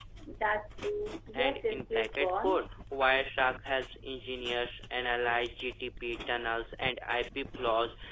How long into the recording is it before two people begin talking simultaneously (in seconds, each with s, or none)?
1.4 s